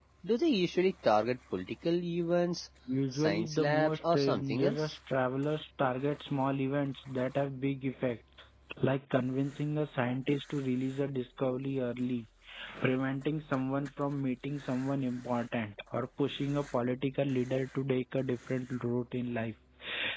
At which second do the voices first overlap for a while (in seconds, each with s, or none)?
3.1 s